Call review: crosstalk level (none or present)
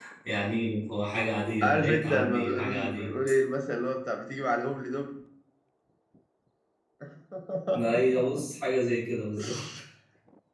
present